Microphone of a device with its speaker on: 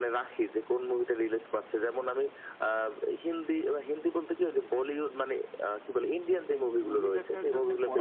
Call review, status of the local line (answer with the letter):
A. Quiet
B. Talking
B